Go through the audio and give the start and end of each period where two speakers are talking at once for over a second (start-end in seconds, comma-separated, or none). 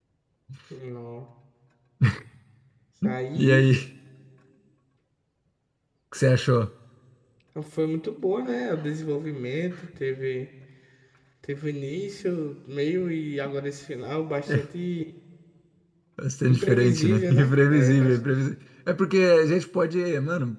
16.5-18.3